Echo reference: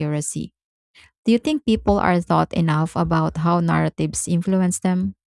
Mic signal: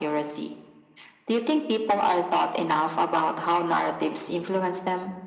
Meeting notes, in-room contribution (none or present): none